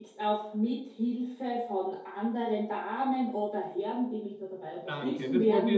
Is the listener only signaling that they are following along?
No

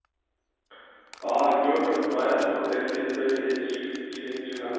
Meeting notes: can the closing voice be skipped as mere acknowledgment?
No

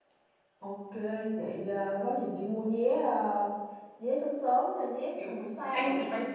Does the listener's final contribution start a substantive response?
No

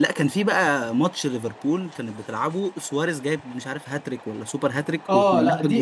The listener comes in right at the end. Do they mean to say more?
Yes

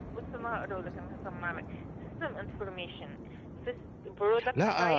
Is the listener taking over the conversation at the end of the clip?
Yes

